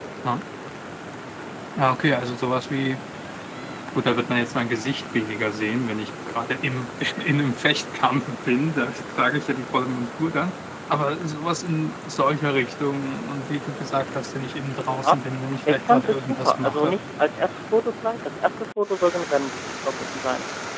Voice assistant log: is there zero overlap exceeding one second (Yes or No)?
No